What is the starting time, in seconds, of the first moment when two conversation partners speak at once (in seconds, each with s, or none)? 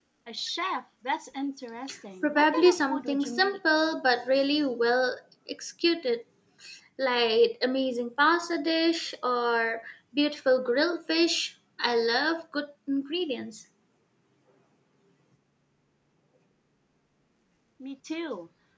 2.2 s